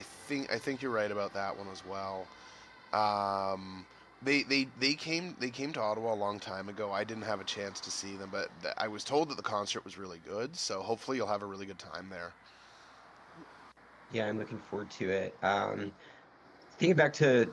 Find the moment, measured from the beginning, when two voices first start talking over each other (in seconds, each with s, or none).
none